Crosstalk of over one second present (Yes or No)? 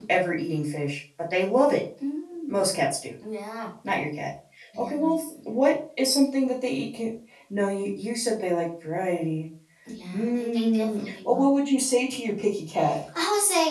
Yes